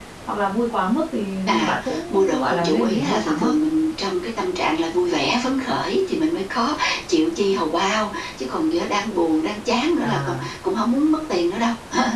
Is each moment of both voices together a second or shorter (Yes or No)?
No